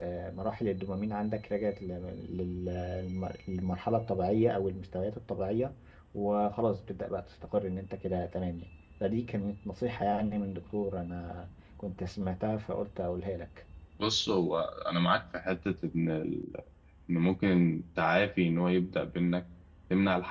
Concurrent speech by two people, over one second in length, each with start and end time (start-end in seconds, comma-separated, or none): none